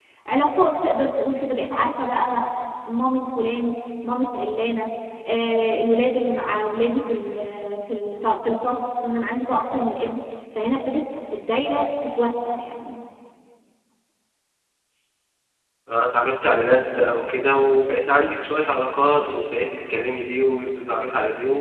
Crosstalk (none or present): none